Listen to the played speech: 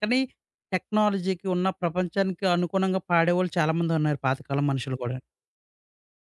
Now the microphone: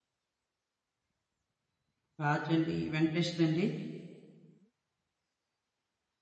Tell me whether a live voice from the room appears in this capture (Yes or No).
Yes